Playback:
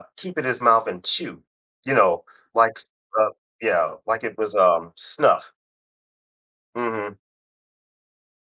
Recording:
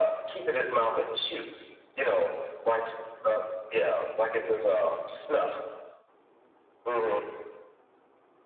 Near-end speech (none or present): none